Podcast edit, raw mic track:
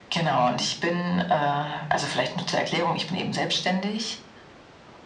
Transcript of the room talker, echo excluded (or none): none